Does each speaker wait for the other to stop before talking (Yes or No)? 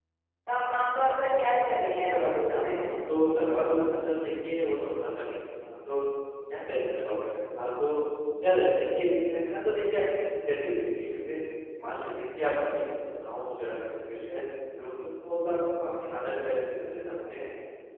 No